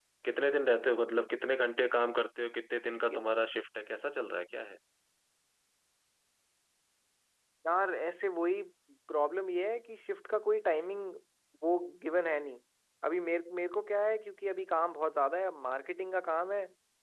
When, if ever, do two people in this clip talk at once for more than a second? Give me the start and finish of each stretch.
none

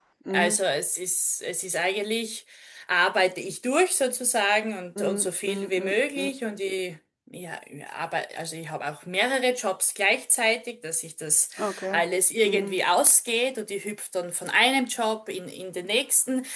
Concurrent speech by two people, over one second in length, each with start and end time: 5.0-6.3

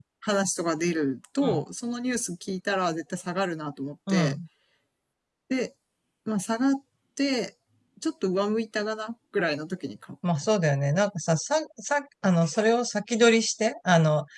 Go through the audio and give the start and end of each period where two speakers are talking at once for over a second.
none

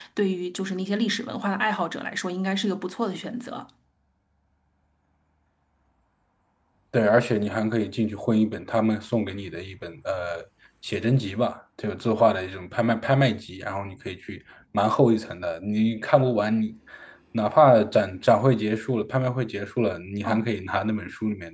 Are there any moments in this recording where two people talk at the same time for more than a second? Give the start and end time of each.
none

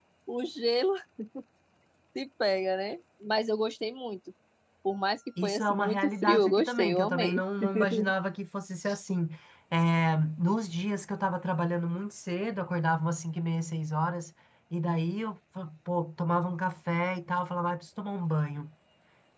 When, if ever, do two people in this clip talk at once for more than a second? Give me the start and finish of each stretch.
5.4-7.4

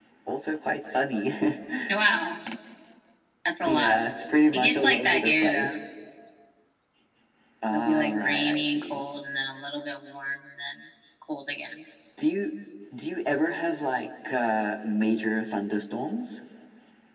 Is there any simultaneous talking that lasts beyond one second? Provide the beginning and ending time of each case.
4.5-5.8, 7.7-9.0

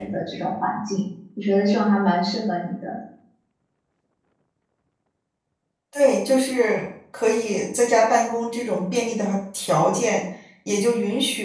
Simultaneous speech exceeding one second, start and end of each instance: none

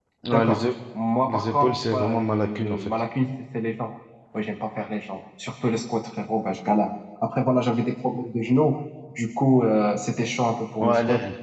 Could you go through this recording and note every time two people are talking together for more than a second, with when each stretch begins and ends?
1.3-2.9

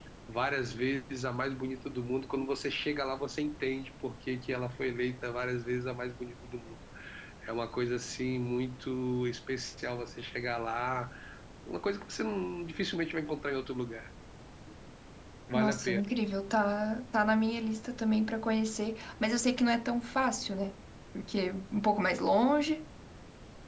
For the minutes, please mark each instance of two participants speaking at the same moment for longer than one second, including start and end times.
none

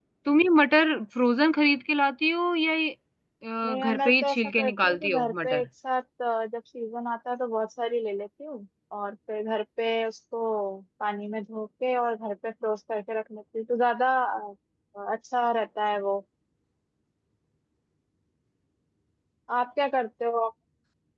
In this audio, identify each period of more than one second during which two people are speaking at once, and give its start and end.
3.6-5.7

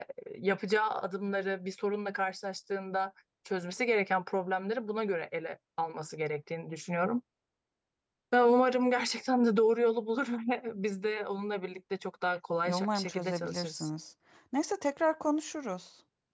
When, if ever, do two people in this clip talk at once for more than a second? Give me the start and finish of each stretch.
12.6-13.9

